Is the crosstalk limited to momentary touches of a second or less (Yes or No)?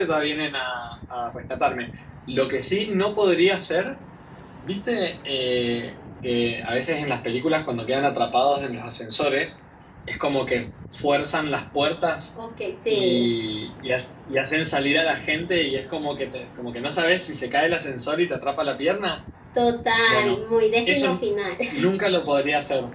Yes